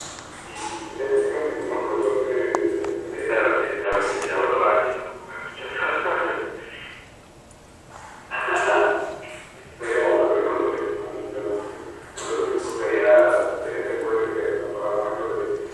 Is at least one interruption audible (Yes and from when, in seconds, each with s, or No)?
Yes, from 3.3 s